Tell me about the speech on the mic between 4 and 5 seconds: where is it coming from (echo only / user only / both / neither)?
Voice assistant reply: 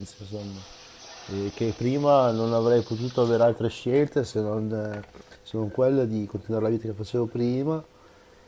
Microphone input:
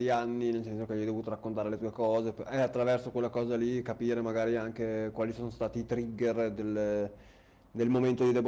user only